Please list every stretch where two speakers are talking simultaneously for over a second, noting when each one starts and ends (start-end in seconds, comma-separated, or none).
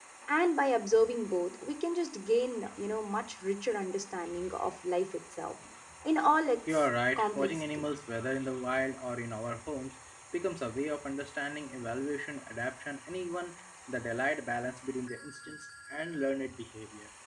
6.7-7.9